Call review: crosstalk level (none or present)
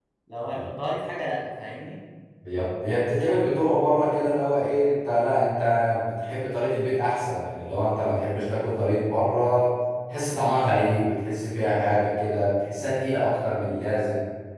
none